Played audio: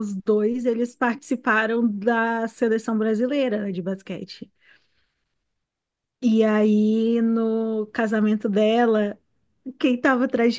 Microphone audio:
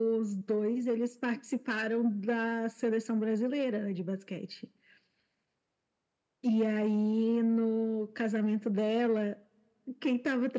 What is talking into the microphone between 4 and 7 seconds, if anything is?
echo only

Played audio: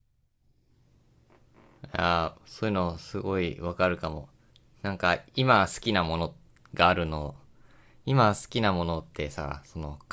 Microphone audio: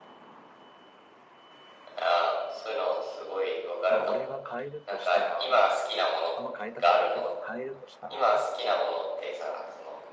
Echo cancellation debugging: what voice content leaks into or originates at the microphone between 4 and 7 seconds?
both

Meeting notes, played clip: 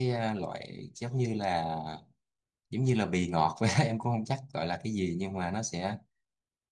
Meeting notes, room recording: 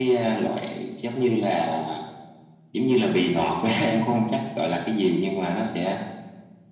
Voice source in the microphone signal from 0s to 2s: echo only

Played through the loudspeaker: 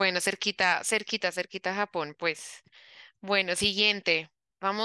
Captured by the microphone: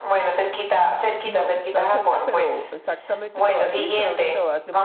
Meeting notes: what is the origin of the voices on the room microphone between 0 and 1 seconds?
echo only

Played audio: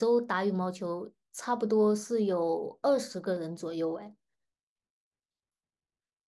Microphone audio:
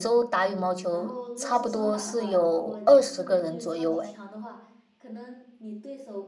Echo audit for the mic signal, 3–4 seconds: both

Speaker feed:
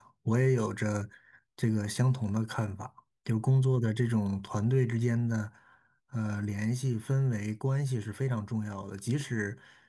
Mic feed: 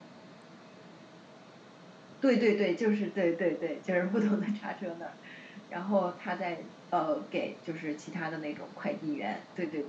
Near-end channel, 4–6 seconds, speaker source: user only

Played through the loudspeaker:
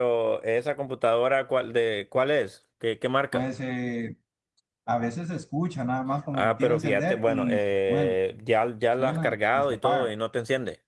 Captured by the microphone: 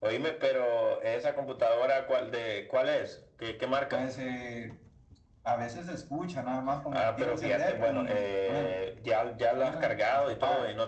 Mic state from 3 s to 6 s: echo only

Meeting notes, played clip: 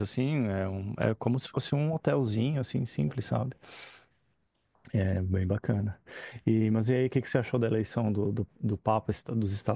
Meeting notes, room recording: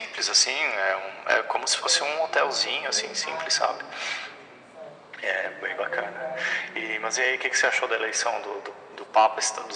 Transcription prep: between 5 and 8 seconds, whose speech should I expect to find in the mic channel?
both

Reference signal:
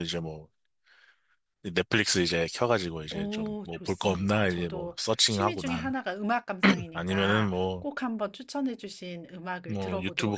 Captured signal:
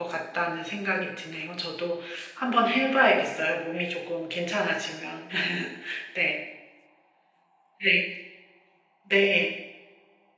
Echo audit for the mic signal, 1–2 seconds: user only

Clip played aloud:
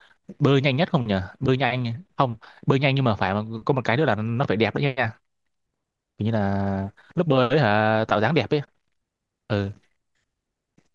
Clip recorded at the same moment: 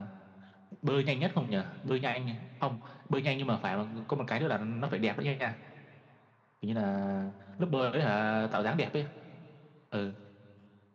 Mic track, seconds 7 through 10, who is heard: echo only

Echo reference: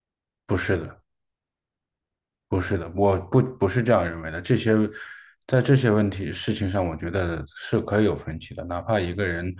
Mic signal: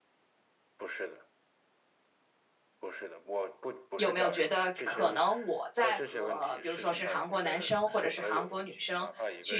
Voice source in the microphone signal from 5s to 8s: both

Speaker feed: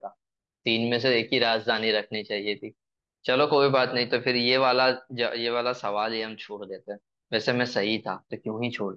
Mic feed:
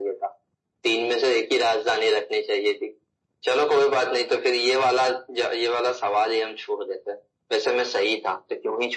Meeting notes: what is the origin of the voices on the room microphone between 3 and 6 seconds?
echo only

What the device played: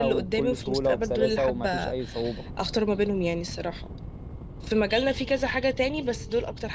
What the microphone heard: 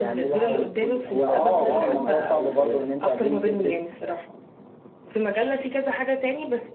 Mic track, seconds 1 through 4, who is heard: both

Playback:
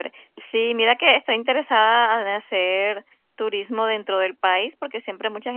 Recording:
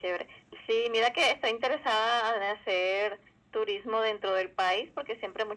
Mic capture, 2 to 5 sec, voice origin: echo only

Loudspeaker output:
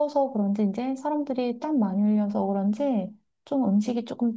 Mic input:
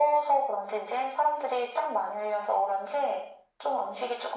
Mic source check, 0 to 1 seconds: echo only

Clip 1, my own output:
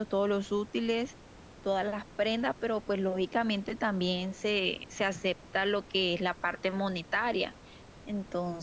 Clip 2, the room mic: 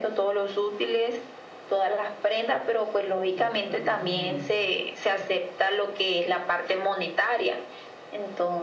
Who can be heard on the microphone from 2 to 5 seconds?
both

